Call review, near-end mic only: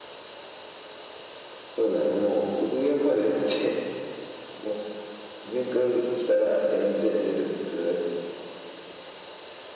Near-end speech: none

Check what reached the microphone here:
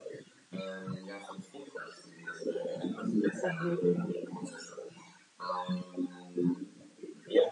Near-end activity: present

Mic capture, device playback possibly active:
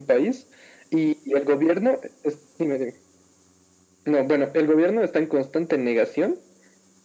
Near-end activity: none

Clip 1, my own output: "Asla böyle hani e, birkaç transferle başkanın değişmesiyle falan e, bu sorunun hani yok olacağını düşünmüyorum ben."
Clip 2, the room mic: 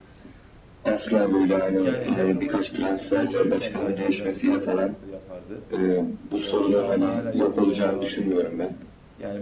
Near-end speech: present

